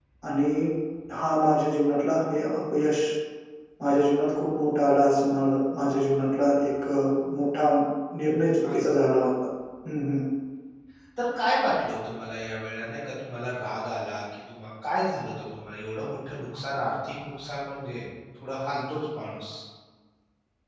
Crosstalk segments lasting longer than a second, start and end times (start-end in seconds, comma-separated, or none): none